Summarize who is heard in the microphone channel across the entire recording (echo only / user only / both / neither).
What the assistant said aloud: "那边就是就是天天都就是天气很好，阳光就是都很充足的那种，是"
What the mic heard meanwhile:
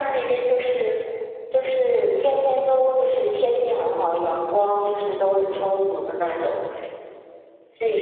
echo only